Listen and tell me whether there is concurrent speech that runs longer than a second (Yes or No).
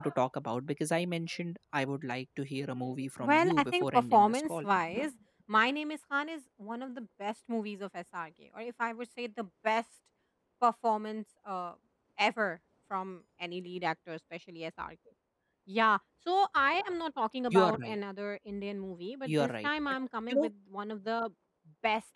Yes